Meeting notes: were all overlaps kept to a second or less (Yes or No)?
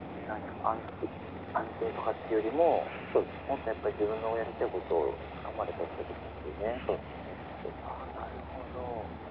Yes